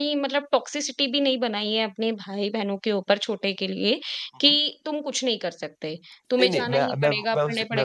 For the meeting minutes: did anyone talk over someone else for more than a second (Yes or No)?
Yes